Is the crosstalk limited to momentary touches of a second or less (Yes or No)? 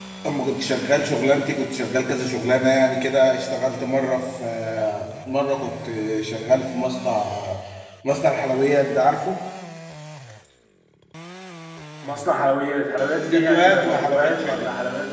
No